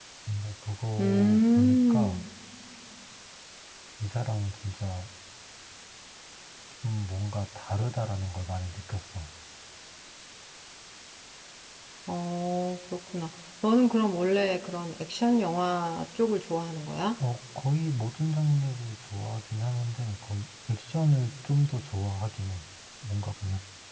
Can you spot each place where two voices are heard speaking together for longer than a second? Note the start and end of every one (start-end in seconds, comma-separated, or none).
1.0-2.2